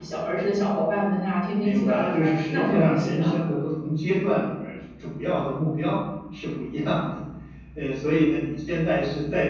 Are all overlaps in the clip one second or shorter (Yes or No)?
No